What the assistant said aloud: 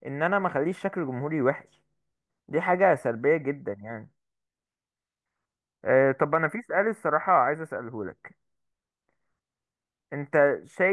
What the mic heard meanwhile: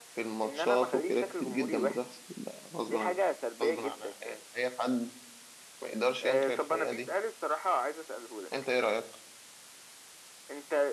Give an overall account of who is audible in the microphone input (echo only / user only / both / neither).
both